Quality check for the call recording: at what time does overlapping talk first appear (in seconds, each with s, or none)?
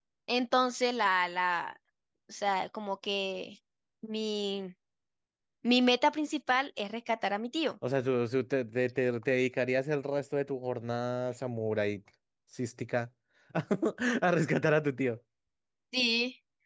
none